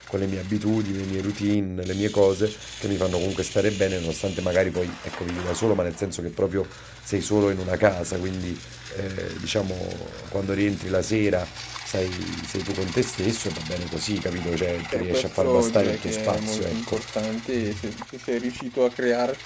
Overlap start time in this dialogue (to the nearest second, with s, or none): 15 s